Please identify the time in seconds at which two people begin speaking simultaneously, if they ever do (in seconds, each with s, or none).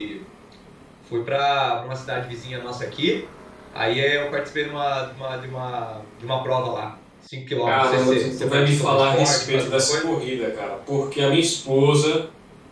7.7 s